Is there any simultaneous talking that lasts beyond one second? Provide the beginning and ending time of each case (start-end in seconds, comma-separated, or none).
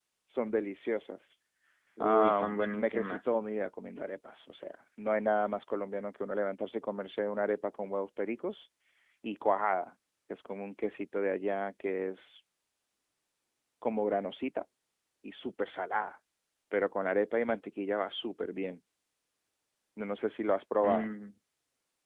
2.0-3.4